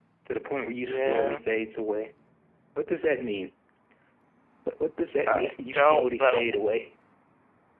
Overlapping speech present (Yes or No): Yes